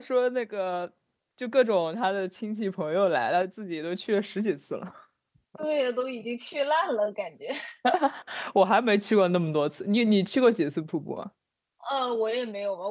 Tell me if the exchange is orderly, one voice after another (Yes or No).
Yes